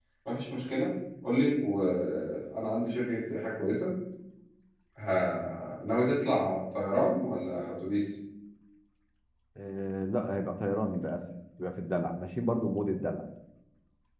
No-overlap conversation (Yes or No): Yes